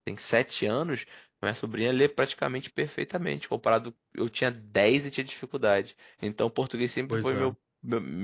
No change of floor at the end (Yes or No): Yes